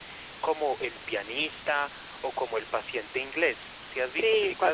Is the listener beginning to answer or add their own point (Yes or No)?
Yes